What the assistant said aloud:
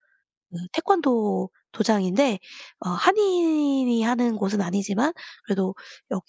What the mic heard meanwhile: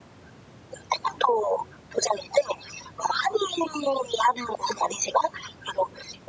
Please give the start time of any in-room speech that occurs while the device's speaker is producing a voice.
none

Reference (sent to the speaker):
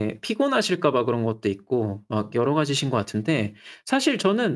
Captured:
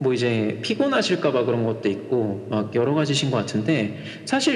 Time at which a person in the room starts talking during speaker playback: none

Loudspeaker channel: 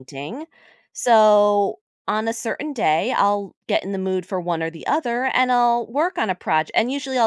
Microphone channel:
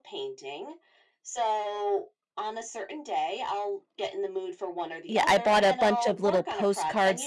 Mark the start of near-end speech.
5.1 s

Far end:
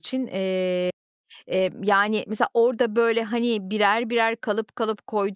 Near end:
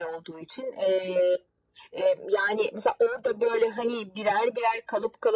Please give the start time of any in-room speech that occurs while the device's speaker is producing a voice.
none

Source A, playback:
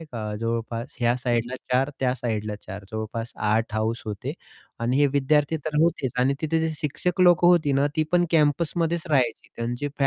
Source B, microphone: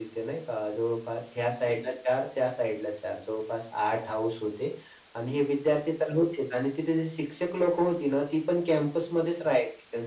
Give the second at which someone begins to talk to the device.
none

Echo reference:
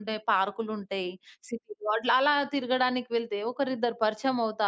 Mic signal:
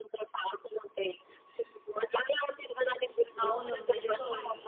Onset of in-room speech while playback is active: 3.5 s

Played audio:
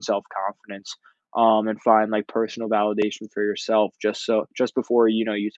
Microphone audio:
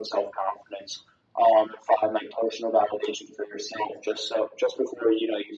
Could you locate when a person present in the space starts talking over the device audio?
none

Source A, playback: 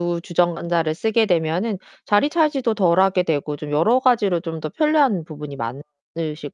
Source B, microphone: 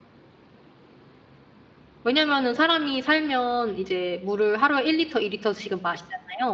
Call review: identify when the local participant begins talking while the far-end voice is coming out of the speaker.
2.0 s

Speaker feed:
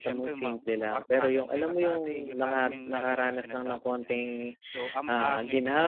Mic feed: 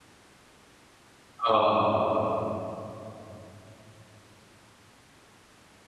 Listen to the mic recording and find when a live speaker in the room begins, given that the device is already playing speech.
1.5 s

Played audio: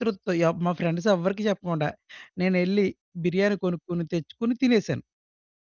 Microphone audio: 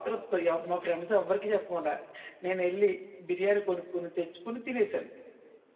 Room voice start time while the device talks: none

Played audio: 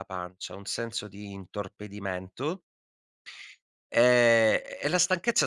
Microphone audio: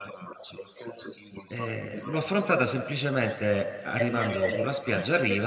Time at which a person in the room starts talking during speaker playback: 1.5 s

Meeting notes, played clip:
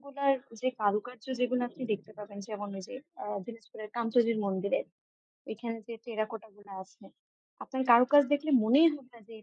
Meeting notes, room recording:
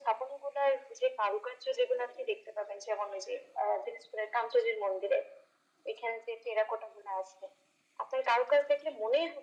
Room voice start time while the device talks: none

